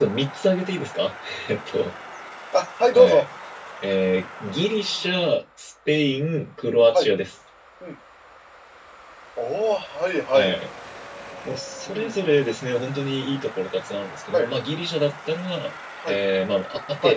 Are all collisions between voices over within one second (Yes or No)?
Yes